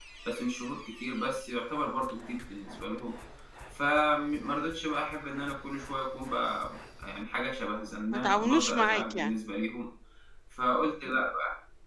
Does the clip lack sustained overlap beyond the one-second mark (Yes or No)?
No